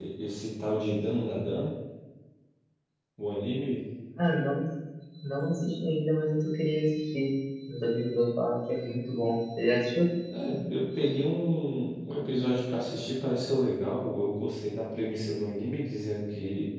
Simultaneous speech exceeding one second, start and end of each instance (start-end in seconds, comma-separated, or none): none